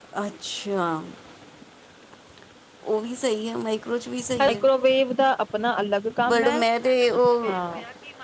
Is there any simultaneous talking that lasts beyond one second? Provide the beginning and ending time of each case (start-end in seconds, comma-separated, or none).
none